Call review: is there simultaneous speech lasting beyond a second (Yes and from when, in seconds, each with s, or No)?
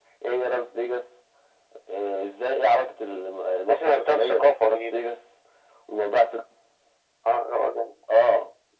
Yes, from 3.7 s